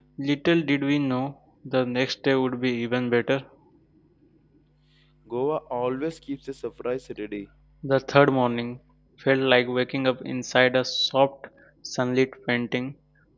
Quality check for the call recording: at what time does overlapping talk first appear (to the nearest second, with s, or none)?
none